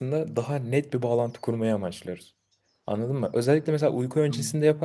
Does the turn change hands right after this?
No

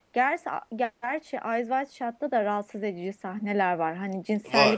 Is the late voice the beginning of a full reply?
No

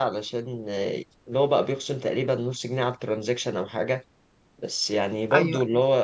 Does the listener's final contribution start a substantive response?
No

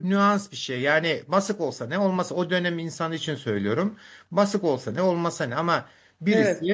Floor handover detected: No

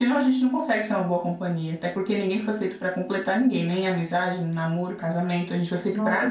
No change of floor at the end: No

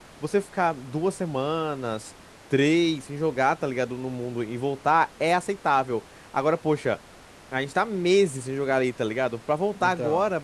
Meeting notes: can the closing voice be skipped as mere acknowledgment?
Yes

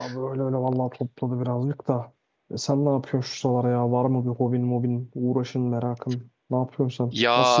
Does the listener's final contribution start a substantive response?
Yes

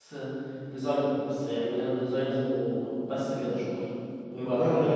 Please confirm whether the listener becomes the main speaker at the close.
Yes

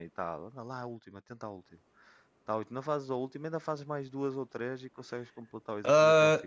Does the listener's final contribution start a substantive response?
Yes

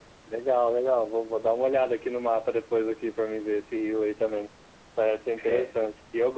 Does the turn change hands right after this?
No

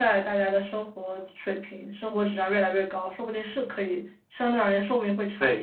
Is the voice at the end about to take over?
Yes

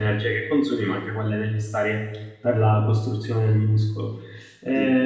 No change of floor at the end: Yes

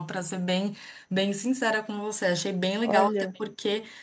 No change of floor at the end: Yes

